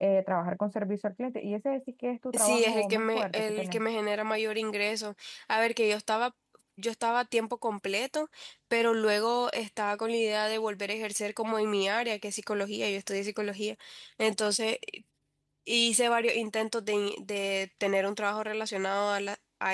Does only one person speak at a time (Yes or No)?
No